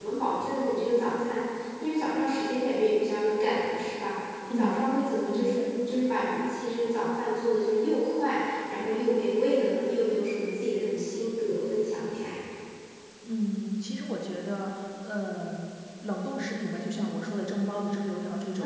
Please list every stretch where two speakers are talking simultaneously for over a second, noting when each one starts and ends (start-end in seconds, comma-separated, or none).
none